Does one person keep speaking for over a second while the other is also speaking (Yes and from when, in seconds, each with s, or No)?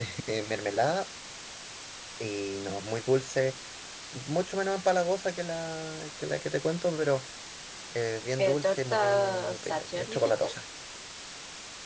Yes, from 8.4 s